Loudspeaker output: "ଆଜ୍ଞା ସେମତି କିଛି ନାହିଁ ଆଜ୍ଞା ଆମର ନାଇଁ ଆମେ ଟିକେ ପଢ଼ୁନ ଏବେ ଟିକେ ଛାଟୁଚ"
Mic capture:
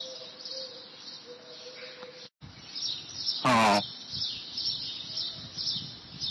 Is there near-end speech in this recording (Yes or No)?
Yes